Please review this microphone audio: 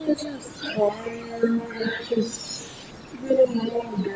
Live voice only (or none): none